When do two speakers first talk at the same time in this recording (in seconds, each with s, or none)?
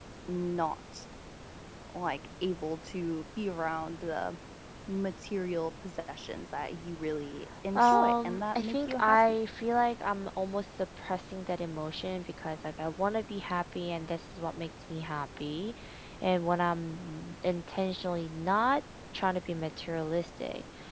7.8 s